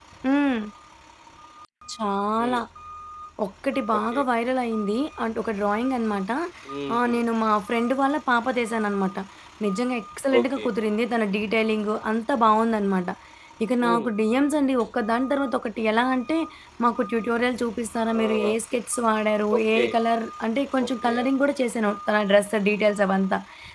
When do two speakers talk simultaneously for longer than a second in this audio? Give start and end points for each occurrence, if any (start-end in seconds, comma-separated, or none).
none